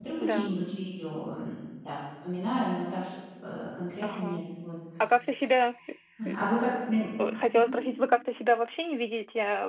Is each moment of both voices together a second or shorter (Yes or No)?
Yes